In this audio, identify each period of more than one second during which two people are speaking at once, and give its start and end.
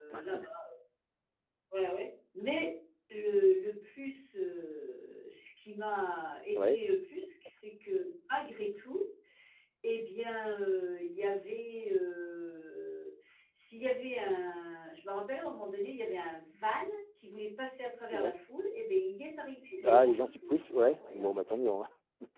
19.8-21.3

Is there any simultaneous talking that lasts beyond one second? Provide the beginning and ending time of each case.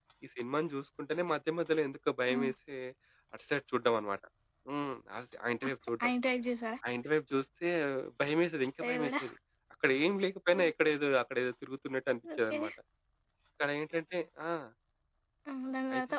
none

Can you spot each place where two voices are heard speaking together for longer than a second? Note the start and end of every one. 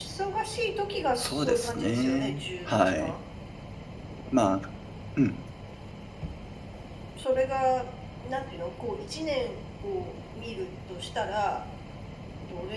1.2-3.1

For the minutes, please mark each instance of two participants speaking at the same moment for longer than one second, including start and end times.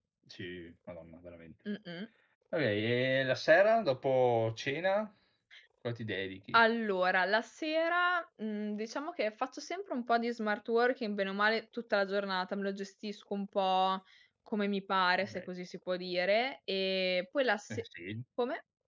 none

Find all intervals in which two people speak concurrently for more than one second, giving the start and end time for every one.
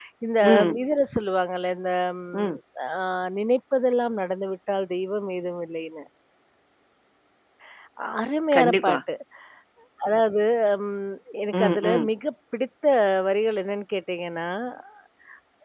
none

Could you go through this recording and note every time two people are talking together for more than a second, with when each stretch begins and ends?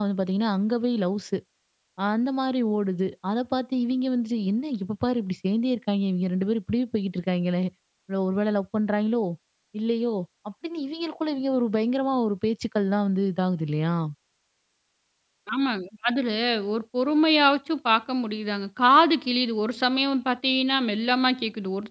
none

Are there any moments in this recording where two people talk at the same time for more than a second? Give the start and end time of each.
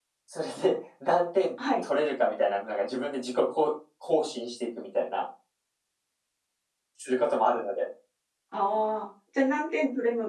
none

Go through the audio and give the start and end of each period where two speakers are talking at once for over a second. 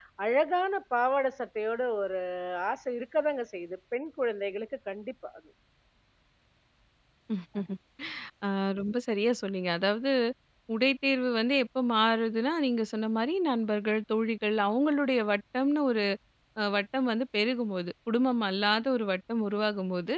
none

